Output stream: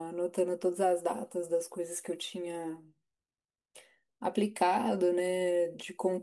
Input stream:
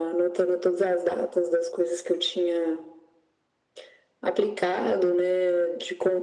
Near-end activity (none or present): none